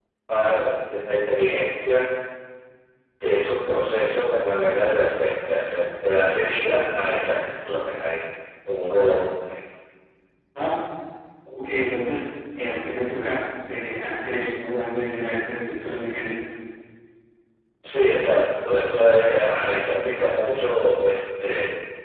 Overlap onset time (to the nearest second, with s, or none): none